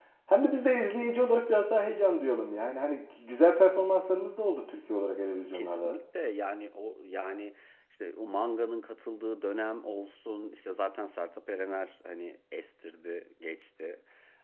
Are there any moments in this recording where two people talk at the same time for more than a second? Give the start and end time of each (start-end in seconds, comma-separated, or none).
none